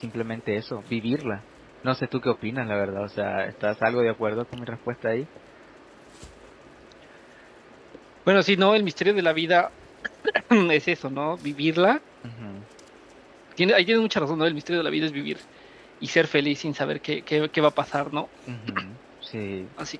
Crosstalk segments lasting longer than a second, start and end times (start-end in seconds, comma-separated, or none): none